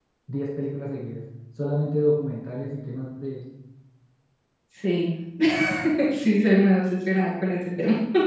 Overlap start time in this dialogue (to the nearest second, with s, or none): none